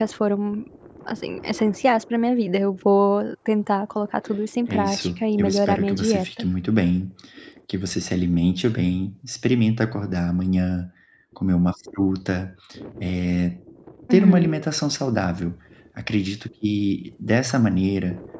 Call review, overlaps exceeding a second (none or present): present